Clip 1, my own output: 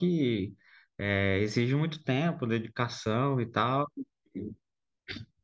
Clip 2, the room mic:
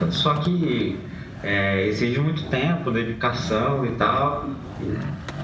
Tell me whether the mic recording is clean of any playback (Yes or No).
No